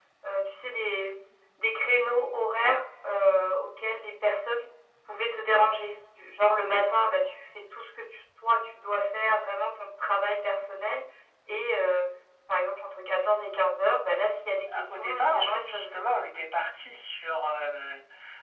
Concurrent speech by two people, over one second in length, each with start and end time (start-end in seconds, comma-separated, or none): 14.8-16.2